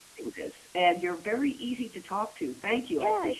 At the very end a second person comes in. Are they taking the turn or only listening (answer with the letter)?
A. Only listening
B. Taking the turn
B